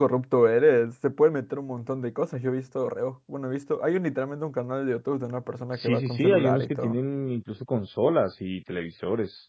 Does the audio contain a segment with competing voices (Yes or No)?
Yes